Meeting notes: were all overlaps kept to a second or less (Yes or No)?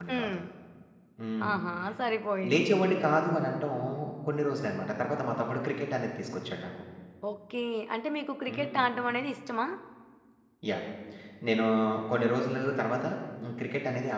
Yes